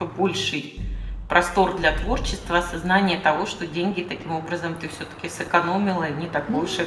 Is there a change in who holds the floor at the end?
Yes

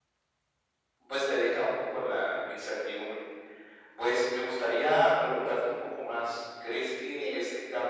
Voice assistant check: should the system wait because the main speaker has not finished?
Yes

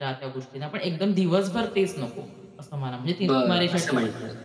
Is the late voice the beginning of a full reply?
Yes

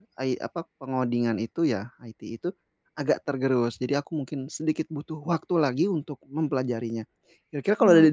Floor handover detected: No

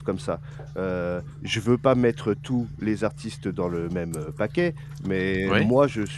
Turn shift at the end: No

